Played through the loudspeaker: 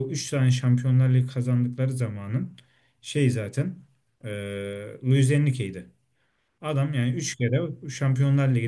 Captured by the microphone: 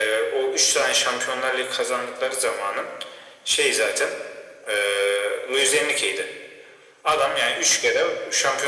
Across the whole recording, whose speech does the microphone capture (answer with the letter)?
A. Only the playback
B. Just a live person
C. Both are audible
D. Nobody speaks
A